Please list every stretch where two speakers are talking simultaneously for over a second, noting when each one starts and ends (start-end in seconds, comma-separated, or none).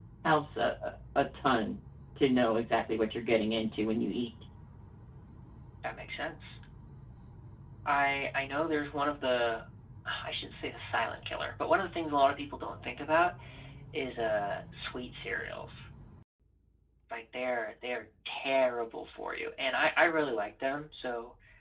none